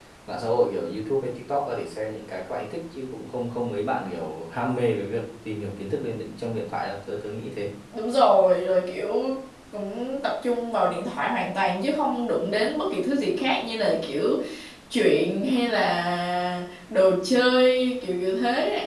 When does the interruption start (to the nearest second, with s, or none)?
none